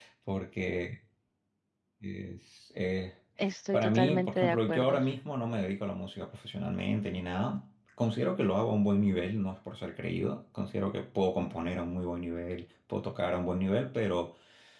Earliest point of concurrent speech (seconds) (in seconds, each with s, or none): 3.7 s